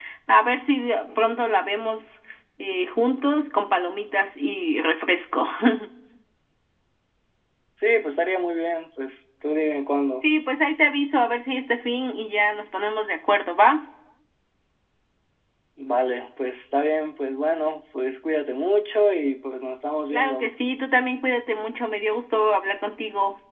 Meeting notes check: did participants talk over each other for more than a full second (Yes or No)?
No